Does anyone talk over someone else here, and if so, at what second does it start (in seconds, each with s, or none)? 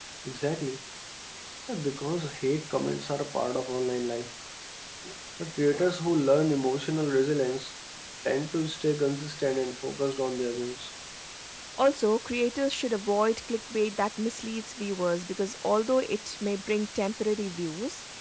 none